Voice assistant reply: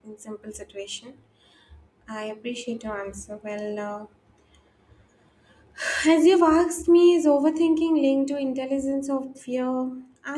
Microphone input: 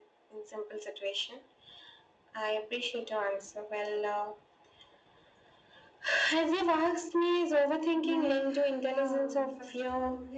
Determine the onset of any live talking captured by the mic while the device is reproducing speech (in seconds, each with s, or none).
8.0 s